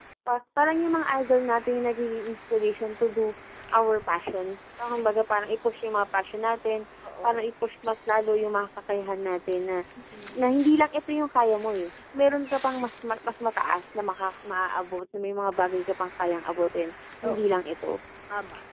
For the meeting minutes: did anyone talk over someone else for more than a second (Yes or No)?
No